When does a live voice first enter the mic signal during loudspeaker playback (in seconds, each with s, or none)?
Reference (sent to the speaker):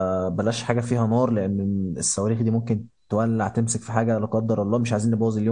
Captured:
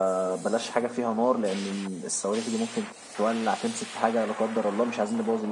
none